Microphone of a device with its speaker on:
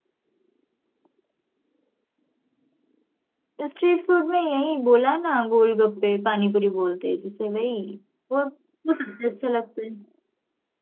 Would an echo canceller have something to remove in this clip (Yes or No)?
No